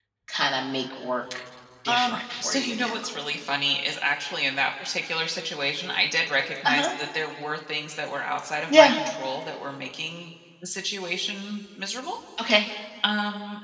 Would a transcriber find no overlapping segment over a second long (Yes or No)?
No